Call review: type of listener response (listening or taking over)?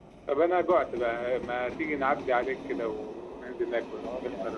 taking over